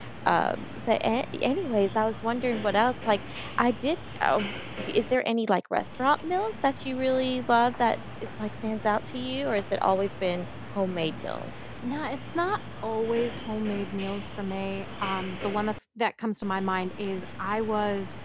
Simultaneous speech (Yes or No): No